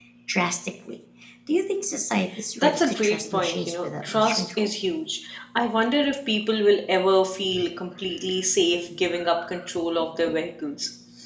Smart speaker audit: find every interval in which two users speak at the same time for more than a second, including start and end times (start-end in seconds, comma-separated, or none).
2.6-4.7